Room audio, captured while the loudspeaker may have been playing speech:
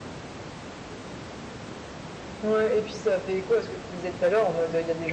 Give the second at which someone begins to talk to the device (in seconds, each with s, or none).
2.4 s